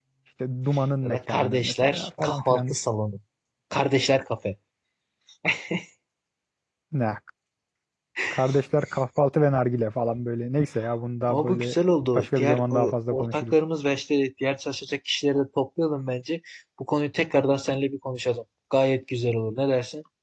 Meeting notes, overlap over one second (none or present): present